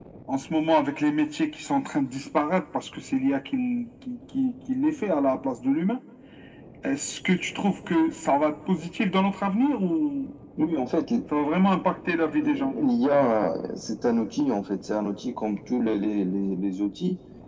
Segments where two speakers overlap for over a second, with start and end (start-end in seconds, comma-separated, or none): none